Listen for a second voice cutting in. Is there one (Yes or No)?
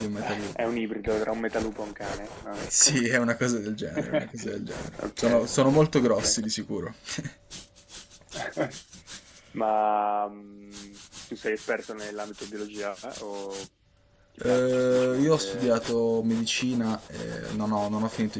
Yes